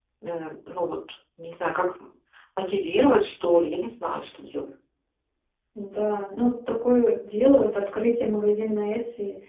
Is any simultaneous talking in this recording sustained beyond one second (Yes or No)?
No